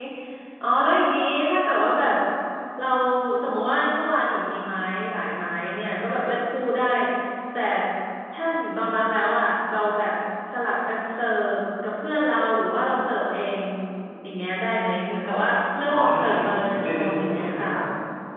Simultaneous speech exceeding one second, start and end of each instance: 15.9-17.7

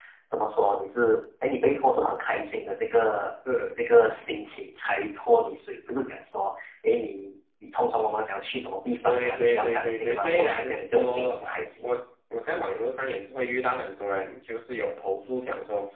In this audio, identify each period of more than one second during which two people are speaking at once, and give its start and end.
9.0-11.8

